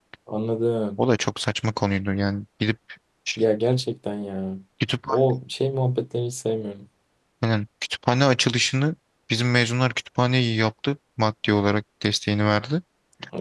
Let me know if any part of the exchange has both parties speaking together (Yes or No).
No